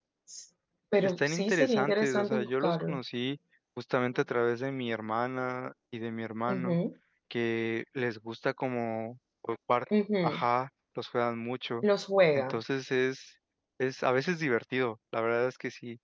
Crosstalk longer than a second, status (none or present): present